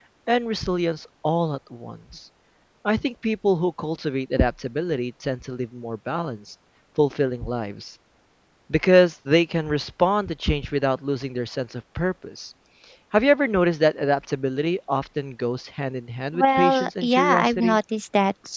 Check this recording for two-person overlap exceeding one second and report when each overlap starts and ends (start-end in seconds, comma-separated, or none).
16.3-17.8